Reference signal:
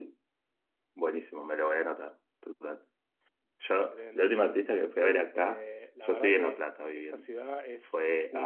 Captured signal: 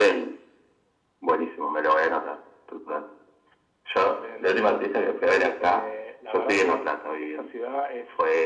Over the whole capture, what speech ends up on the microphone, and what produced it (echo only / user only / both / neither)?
echo only